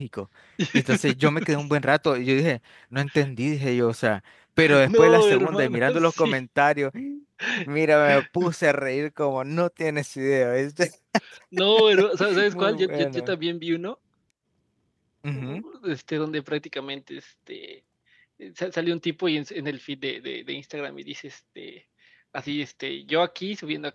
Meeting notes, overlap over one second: present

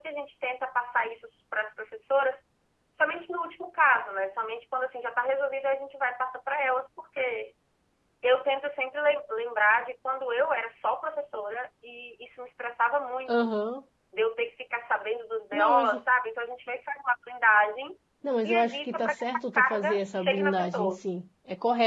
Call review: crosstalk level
present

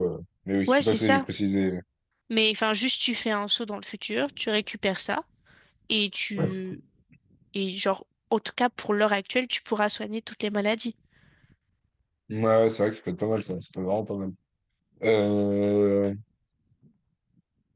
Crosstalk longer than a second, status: none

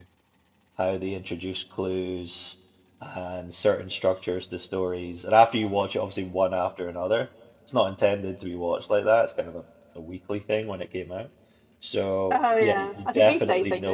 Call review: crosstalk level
present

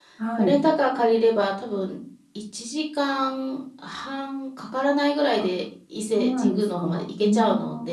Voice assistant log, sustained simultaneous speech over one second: present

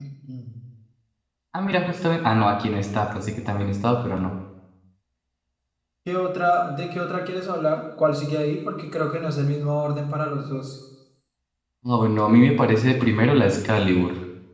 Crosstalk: none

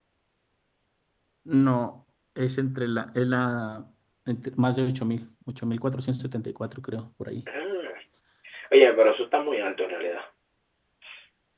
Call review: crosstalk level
none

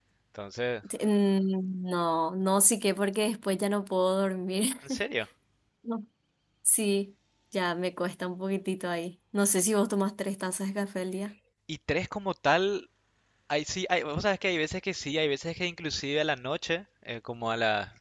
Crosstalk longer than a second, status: none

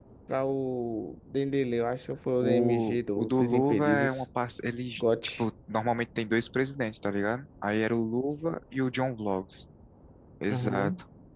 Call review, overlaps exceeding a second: present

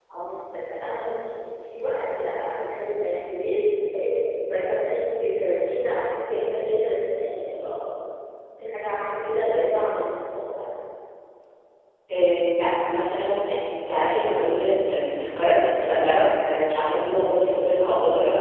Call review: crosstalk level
none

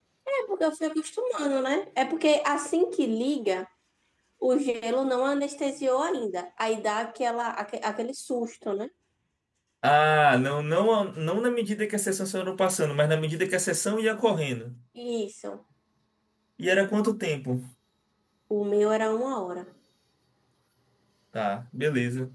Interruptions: none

